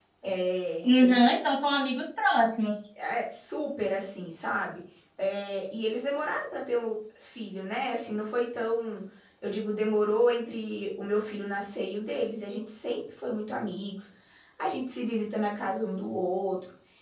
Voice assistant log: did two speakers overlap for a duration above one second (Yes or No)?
No